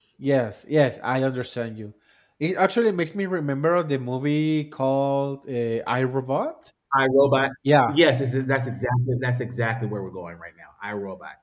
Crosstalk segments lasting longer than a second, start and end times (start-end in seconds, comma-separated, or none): none